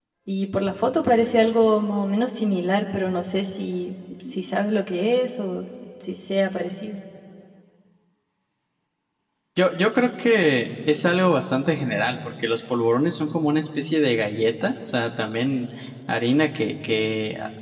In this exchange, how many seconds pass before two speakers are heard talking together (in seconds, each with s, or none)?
none